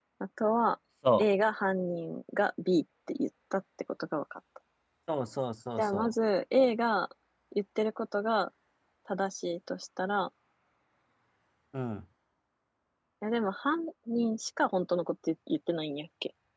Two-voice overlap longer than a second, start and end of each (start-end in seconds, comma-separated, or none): none